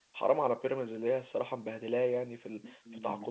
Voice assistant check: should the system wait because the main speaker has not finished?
No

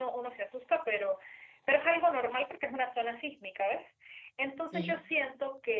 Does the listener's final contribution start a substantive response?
No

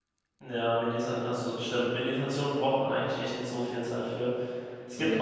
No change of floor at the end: Yes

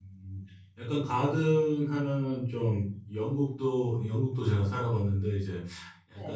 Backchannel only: Yes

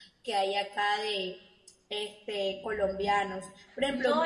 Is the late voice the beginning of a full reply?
No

